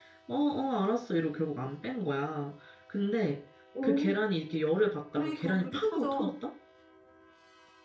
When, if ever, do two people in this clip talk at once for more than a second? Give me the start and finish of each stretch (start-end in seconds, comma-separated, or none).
5.1-6.3